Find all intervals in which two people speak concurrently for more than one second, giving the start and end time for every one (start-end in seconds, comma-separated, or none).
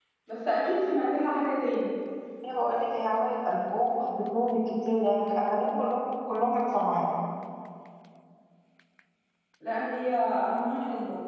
none